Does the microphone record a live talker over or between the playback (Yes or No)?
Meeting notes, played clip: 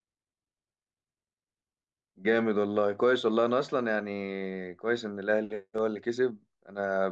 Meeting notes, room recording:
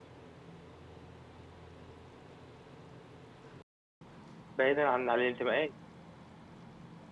Yes